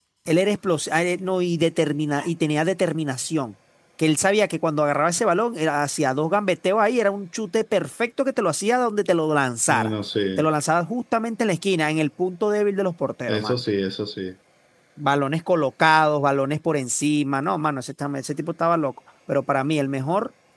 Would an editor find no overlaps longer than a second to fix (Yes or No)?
Yes